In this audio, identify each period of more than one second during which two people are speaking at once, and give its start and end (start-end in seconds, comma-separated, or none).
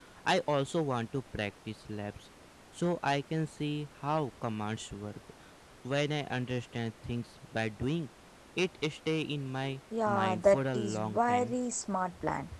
10.1-11.5